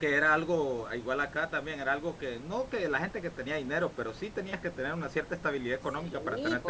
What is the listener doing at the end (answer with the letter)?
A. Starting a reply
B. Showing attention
A